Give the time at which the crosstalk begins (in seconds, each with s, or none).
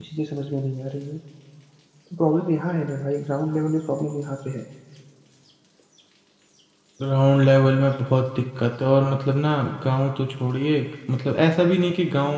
none